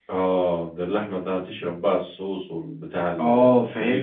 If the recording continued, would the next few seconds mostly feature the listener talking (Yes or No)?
Yes